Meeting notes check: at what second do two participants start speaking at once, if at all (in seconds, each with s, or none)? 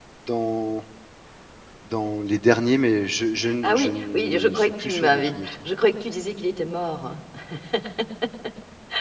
3.6 s